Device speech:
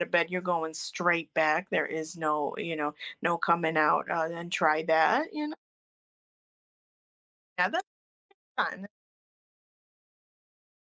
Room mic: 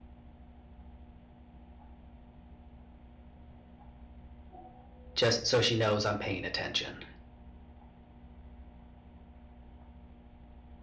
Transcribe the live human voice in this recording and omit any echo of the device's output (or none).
Just so she knows I'm paying attention.